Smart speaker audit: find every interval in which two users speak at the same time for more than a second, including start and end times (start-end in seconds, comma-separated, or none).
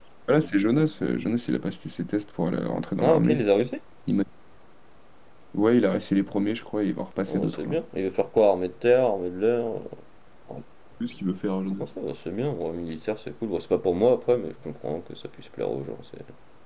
none